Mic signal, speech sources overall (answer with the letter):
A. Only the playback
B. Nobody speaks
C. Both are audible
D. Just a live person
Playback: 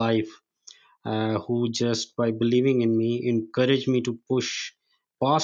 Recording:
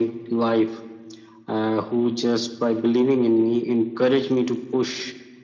A